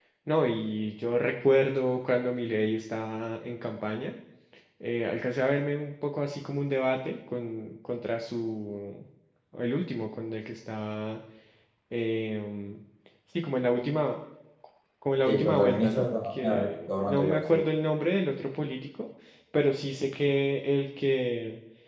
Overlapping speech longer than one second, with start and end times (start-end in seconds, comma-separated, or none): 15.2-17.6